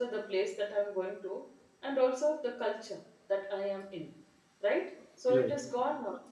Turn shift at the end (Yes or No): No